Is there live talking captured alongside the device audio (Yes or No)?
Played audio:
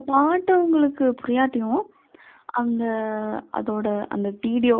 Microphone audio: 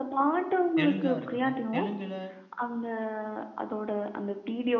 Yes